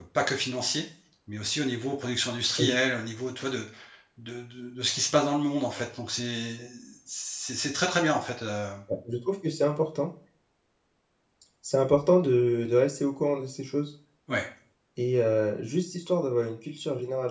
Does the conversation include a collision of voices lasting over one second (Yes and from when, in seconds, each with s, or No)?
No